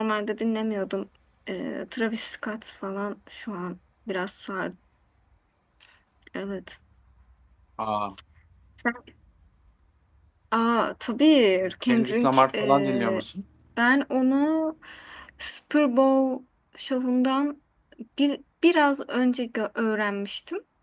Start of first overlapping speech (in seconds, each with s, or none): 11.6 s